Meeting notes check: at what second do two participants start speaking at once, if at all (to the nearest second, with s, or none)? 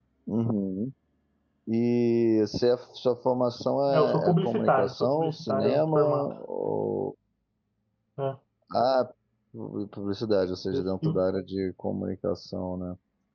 4 s